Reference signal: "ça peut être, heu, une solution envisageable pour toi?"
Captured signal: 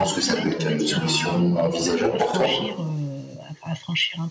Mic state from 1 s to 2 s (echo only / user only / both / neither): both